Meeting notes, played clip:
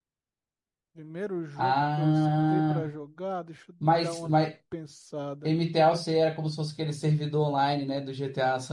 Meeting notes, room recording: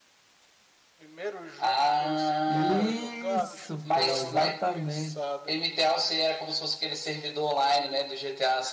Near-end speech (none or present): present